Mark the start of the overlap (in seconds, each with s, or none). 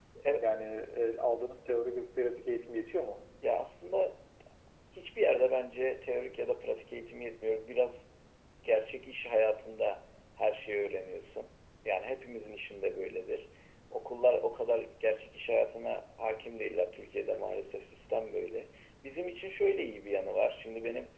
none